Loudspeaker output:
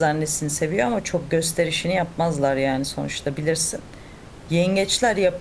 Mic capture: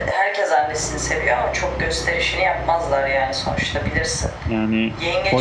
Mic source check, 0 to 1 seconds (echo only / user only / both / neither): echo only